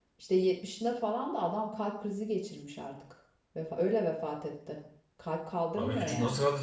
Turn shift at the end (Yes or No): Yes